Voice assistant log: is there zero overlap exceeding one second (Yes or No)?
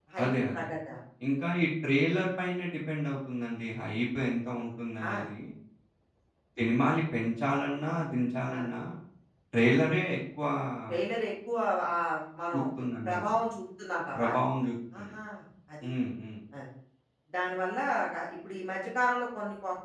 Yes